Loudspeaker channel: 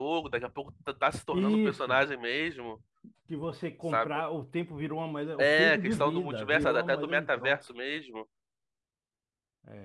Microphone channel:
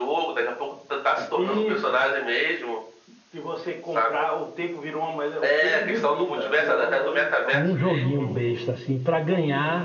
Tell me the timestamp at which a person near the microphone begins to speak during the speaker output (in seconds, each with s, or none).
7.5 s